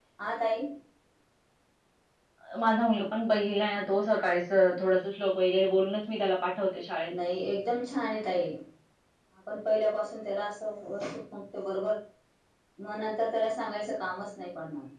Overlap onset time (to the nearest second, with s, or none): none